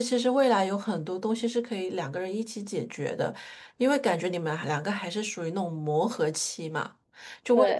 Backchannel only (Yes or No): Yes